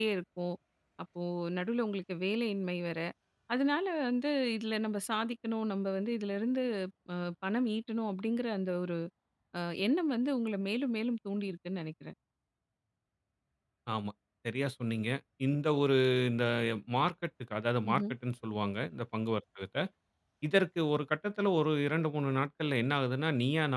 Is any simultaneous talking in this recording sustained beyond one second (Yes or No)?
No